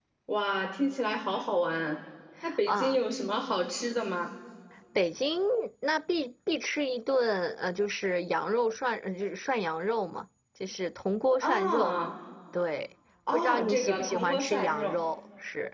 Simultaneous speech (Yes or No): Yes